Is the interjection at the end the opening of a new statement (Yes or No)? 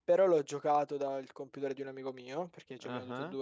No